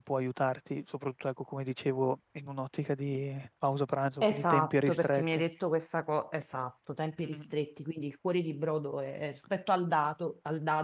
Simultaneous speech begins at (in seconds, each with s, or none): 4.2 s